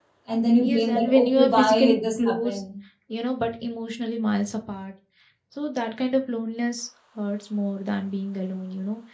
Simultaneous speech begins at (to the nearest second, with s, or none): 1 s